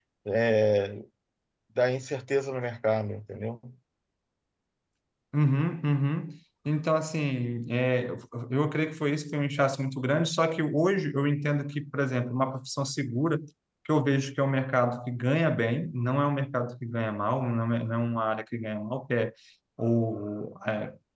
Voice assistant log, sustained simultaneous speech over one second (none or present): none